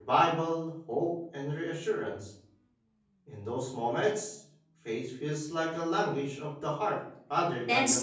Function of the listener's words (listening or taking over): taking over